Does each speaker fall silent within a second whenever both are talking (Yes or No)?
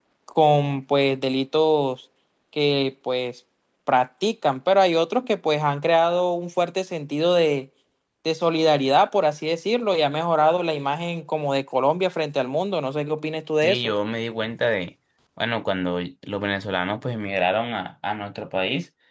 Yes